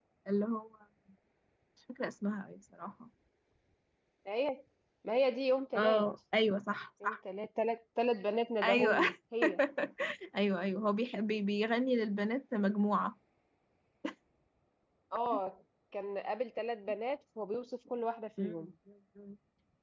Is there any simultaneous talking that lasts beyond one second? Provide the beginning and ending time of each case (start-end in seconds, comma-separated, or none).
none